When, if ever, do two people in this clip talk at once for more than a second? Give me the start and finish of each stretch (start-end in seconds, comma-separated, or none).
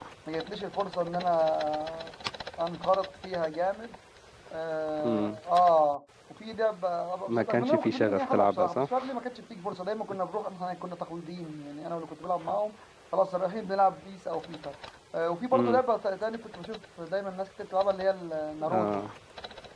7.2-9.1